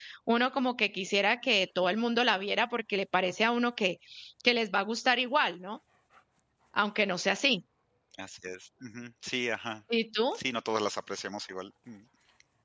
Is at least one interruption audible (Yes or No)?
No